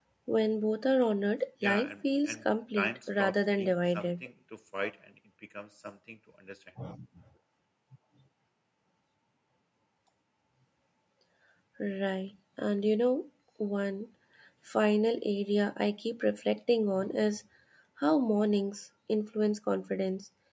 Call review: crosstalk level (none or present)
present